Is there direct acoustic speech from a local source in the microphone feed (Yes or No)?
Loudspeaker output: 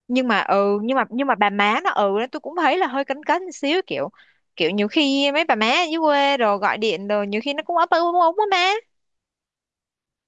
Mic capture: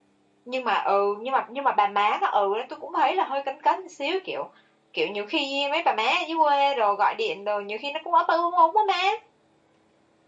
No